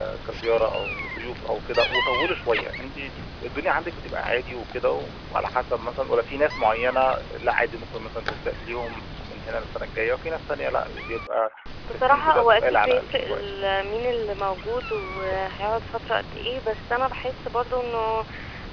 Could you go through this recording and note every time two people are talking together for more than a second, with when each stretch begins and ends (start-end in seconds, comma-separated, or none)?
11.9-13.4